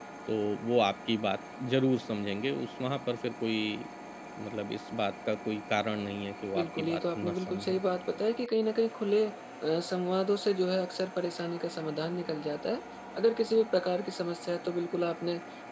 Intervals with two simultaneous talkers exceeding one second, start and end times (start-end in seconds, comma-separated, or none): 6.6-7.8